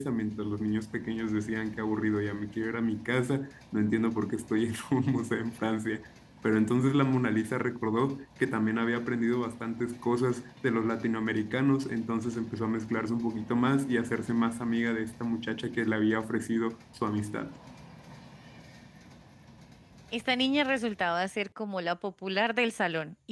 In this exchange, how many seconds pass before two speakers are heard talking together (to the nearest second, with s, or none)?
none